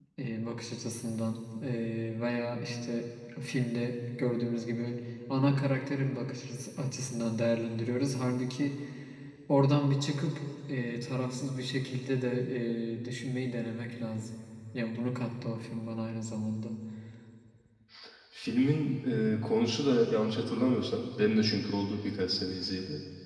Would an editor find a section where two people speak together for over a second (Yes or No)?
No